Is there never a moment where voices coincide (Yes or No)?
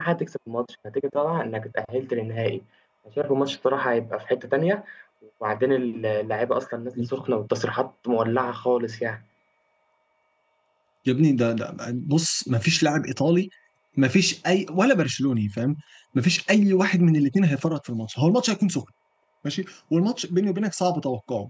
Yes